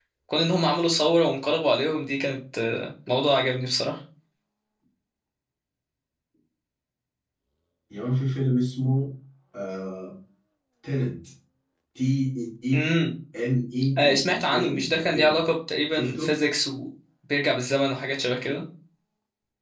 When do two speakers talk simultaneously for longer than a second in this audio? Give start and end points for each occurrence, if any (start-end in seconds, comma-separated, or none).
14.0-15.4